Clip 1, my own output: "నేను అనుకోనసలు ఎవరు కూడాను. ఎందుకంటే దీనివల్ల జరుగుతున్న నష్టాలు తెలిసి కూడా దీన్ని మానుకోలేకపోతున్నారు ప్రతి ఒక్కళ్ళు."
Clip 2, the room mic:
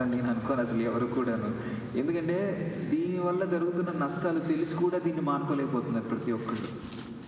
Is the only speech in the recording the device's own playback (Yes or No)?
Yes